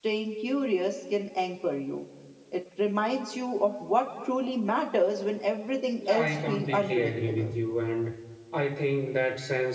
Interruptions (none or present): present